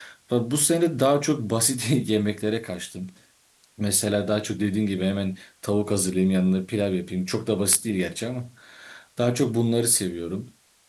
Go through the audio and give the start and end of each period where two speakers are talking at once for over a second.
none

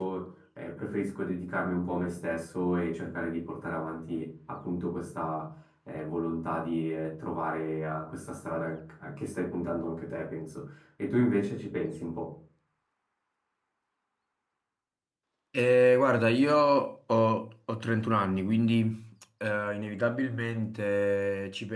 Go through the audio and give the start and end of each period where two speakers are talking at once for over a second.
none

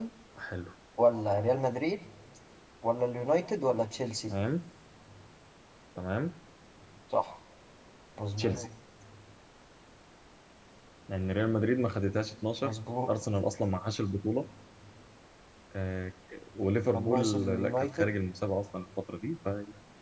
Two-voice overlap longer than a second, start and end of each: 16.9-18.2

